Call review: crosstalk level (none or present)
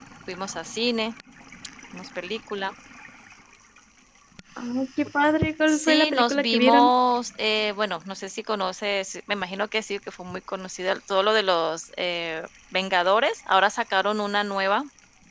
present